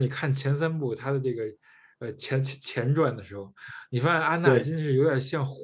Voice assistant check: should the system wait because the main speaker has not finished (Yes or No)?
Yes